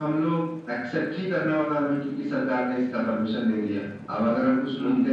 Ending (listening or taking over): listening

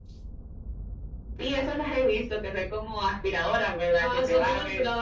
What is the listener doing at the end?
taking over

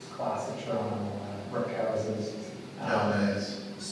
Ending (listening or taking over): listening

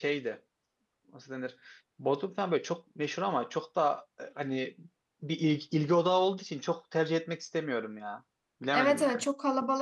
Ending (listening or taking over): taking over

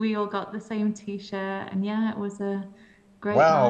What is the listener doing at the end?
taking over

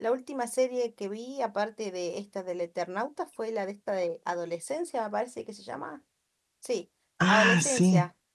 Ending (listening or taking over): listening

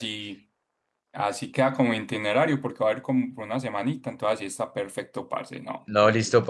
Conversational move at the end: taking over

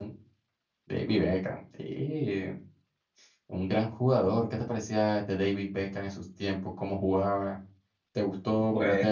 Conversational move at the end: listening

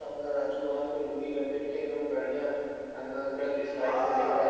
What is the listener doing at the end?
taking over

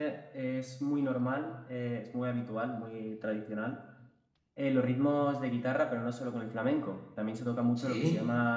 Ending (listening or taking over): listening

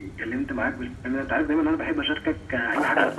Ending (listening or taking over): taking over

